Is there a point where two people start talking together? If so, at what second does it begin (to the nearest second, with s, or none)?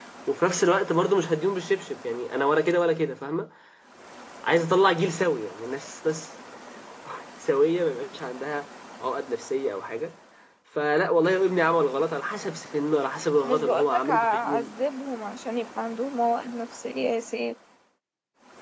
13 s